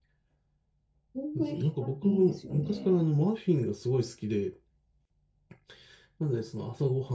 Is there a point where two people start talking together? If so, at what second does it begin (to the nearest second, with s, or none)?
2 s